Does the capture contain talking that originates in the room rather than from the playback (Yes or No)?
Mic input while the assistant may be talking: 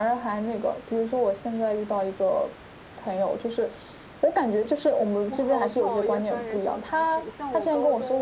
Yes